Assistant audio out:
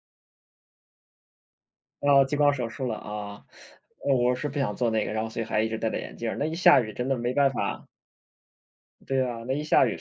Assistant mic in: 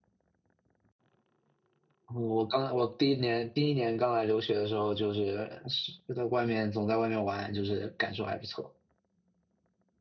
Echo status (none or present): none